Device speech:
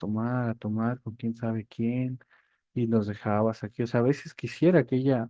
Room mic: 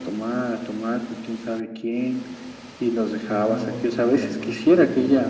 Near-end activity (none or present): present